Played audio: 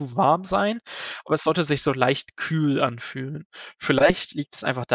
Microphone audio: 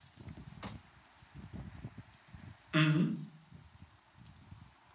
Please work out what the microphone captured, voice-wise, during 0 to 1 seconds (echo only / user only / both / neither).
neither